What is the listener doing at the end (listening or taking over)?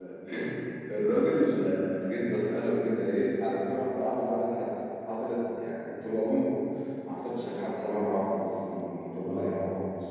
listening